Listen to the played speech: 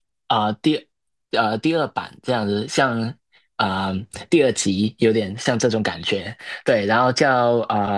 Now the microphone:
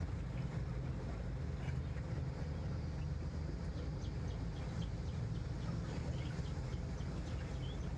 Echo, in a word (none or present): none